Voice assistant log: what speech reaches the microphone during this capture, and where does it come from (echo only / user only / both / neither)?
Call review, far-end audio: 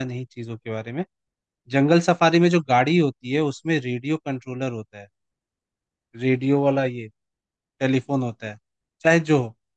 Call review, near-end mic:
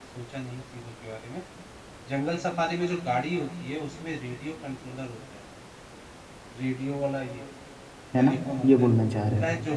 both